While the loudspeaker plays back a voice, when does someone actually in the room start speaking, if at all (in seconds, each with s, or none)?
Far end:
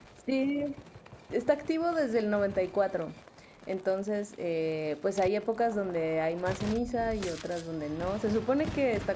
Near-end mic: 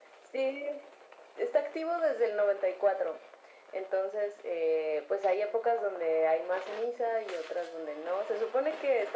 none